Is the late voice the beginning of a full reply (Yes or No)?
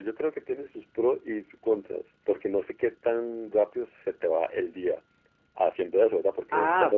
Yes